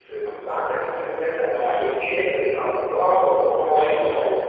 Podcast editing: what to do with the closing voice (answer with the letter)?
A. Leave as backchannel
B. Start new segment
B